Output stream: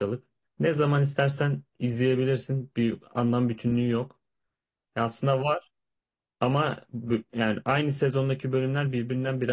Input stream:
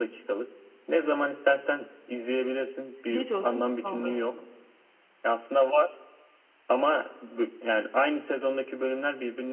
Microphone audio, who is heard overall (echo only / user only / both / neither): both